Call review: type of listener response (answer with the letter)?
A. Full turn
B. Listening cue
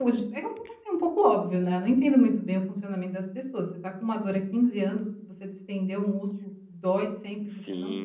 A